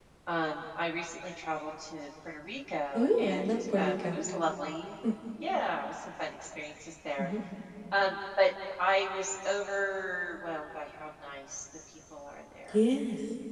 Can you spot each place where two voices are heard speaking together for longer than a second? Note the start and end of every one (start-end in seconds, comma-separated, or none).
3.0-4.2